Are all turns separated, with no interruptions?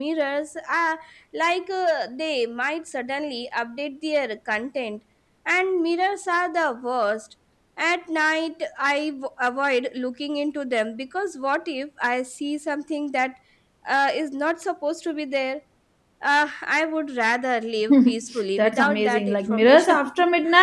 No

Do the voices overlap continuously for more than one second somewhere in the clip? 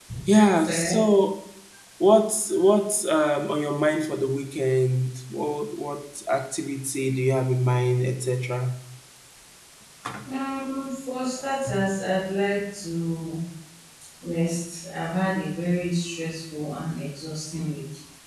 No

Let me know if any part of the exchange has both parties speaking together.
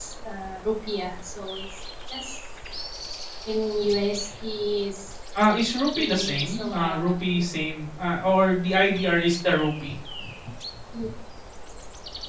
Yes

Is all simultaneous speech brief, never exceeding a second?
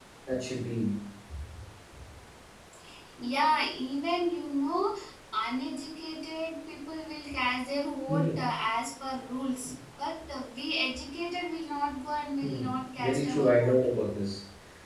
No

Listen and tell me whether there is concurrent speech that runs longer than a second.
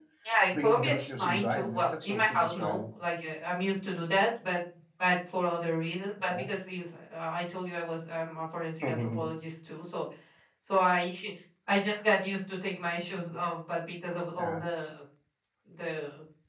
Yes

